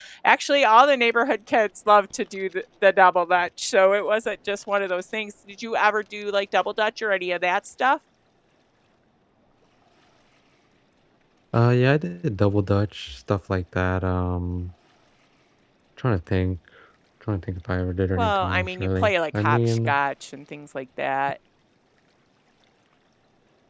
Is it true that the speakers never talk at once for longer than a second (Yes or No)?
No